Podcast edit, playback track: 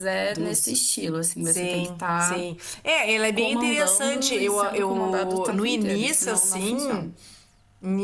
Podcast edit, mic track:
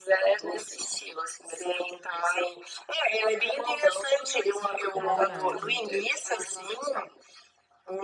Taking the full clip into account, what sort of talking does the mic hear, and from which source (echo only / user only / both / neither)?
both